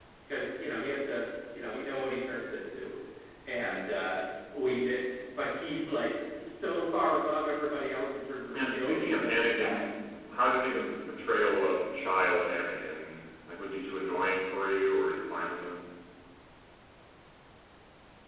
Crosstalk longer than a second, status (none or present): present